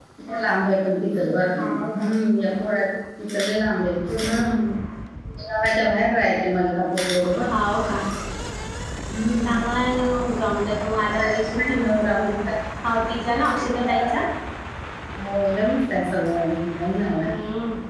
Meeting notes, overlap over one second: none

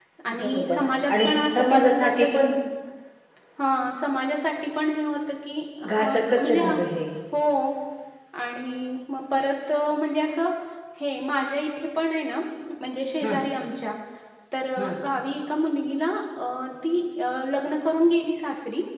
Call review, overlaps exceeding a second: present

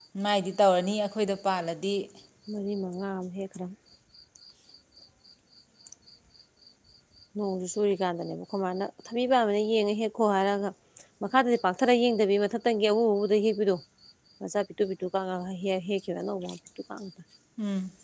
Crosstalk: none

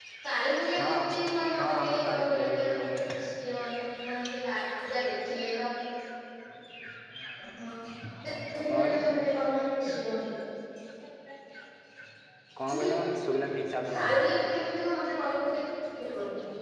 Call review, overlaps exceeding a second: present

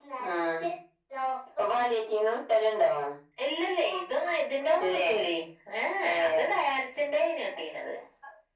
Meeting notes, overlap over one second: none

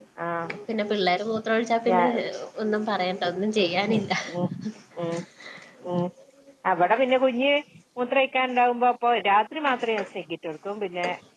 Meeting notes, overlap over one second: none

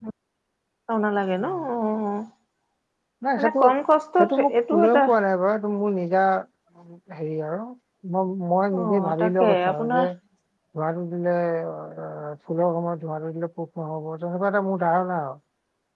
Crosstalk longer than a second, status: present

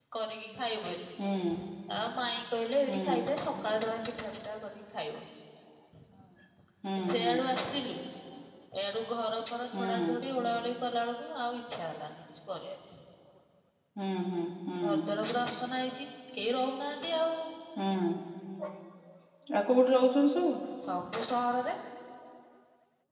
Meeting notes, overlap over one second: none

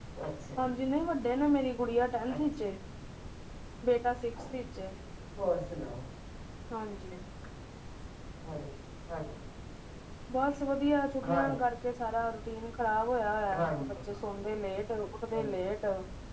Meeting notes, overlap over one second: none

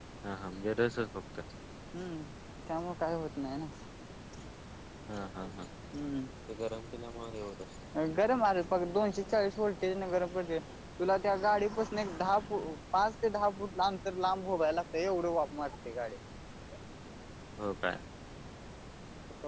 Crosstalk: none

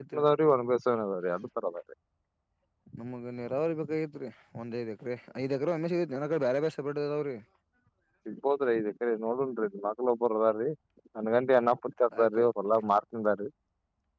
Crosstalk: none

